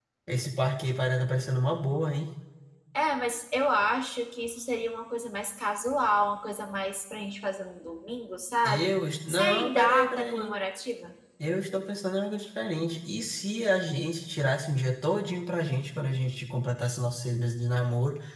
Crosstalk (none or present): present